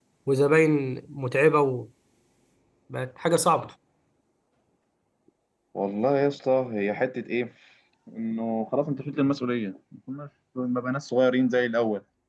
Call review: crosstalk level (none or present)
none